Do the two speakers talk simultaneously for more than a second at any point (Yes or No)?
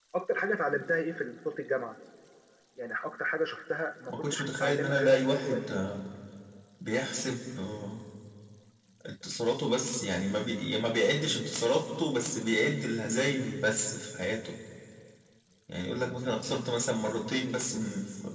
Yes